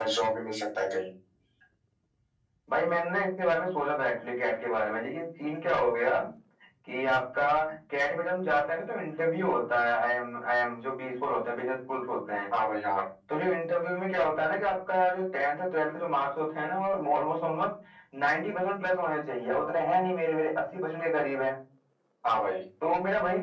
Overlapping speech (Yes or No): No